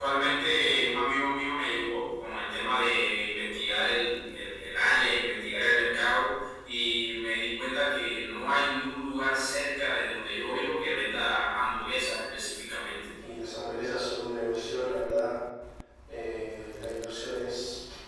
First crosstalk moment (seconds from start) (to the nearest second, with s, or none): none